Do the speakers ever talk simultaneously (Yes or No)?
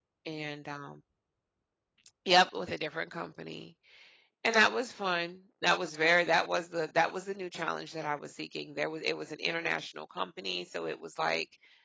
No